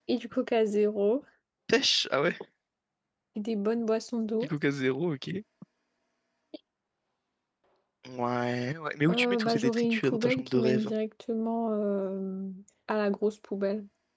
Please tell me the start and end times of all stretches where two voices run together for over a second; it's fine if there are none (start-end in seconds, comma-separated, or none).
9.1-10.9